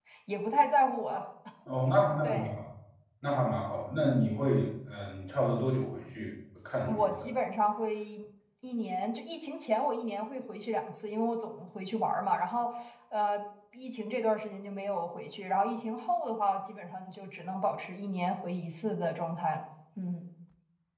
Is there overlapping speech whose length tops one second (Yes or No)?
No